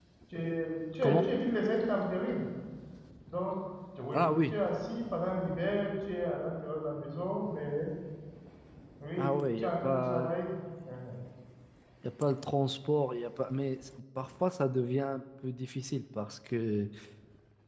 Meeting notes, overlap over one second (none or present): present